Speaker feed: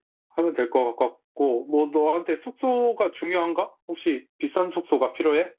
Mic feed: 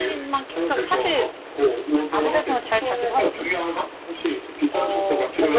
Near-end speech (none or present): present